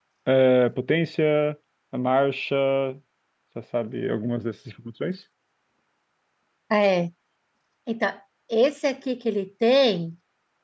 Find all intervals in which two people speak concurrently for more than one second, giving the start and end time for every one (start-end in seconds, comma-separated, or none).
none